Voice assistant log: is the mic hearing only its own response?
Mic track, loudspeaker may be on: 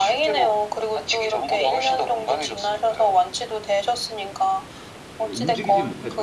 No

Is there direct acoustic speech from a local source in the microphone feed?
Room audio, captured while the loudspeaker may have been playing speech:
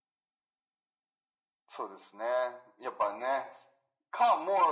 No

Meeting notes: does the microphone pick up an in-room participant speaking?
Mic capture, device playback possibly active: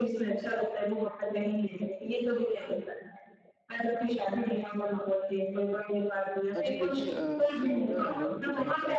Yes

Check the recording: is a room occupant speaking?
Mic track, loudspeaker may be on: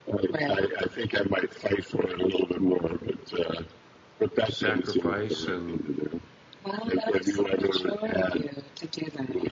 Yes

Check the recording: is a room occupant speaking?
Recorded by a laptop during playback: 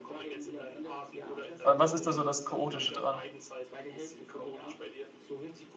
Yes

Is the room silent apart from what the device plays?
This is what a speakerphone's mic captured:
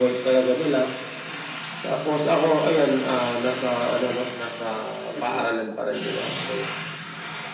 No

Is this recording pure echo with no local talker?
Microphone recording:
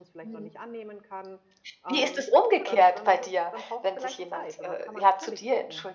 No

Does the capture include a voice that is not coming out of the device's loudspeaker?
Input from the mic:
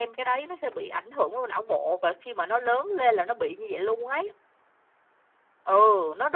No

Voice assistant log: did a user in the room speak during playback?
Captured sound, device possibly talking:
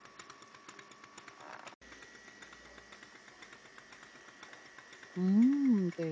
Yes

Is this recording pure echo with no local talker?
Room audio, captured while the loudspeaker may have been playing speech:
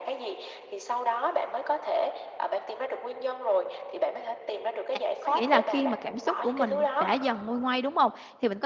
No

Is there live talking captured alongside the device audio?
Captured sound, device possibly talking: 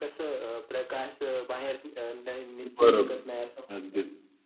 Yes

